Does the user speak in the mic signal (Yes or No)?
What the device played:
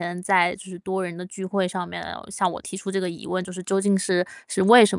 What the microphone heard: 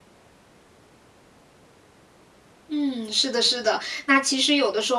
Yes